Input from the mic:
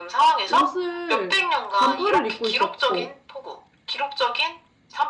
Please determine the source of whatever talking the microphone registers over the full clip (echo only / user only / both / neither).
both